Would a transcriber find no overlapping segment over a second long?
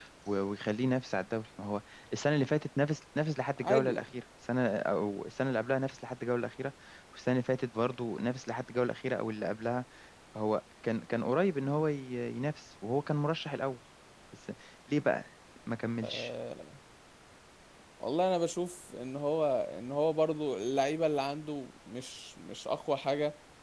Yes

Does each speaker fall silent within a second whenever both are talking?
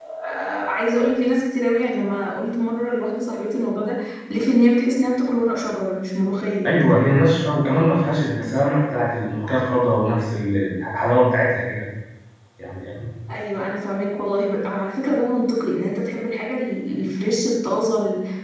Yes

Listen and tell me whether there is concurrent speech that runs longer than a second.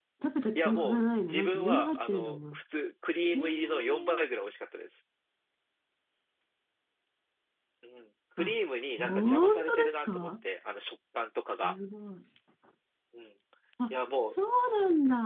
Yes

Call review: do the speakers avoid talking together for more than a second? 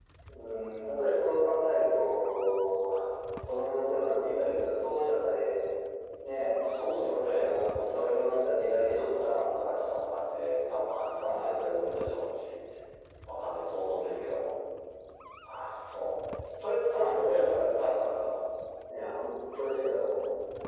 No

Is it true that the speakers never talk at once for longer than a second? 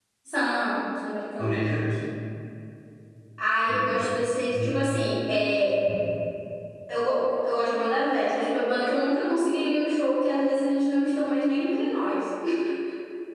Yes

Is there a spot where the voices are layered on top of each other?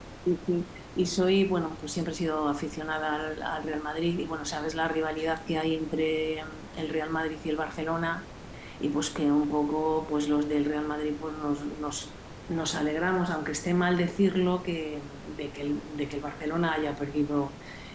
No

